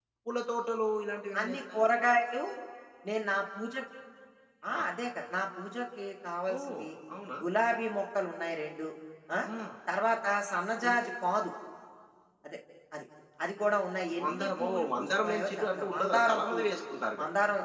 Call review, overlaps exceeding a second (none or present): present